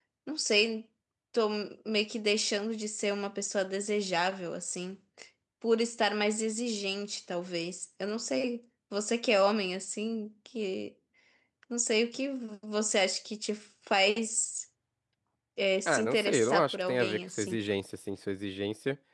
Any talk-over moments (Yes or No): Yes